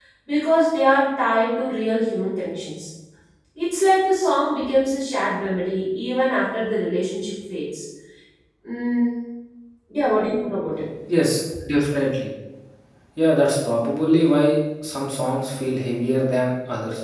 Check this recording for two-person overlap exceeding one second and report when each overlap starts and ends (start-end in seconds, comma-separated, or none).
none